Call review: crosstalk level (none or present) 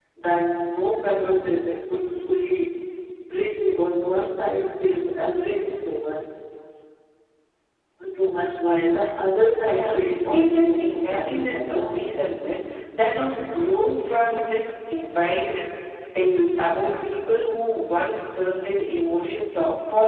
present